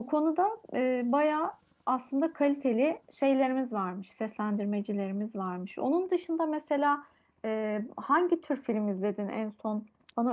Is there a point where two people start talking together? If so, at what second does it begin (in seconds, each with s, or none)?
none